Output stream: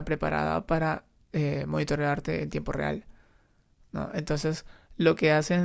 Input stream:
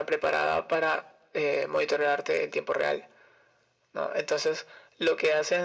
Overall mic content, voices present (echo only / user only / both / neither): echo only